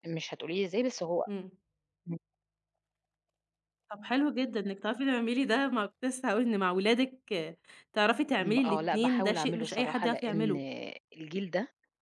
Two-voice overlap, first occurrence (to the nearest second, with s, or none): 8 s